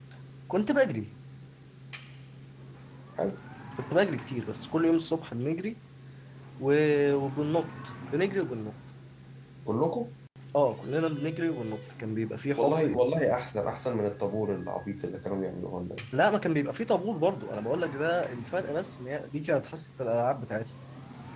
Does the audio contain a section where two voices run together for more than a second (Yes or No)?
No